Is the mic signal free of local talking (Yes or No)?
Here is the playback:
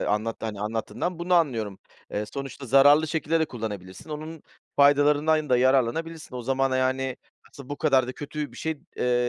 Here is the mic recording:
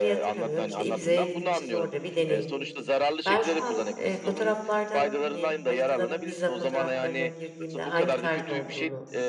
No